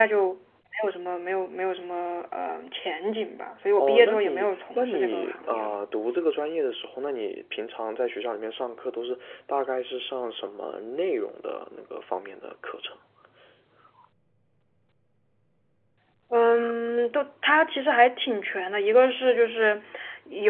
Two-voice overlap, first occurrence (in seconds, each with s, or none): 3.8 s